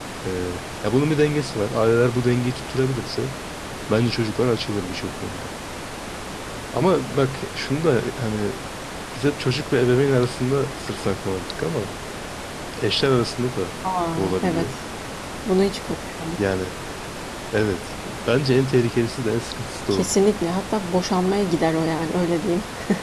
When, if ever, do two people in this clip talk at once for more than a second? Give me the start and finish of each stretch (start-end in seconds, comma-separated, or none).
none